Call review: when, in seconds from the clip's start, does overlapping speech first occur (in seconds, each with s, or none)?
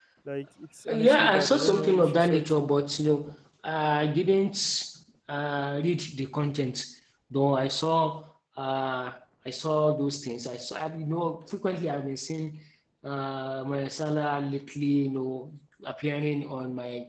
0.9 s